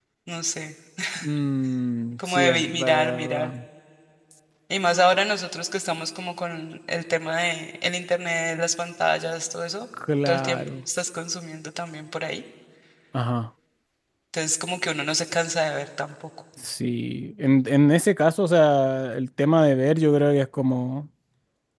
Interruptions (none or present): present